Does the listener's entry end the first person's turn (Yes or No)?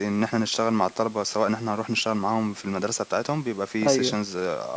No